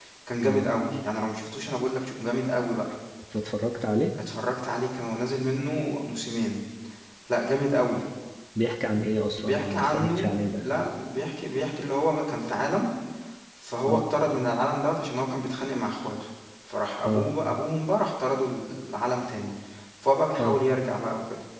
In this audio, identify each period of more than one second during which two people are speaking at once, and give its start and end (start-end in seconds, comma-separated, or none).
9.4-10.7